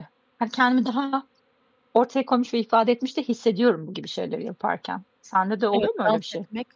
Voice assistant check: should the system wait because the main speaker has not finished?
No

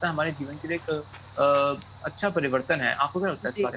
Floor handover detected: Yes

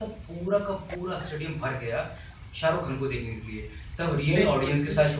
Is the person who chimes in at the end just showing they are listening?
Yes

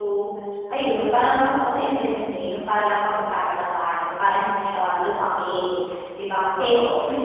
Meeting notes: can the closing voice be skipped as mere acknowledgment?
Yes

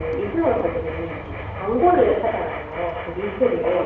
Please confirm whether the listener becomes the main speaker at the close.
No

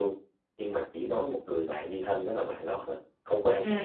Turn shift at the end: Yes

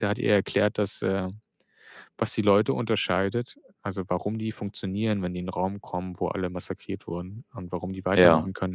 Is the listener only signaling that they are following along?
Yes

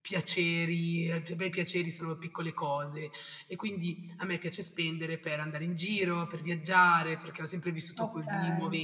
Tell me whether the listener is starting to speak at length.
No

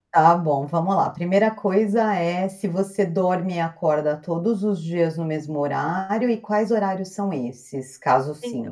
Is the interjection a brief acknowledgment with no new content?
No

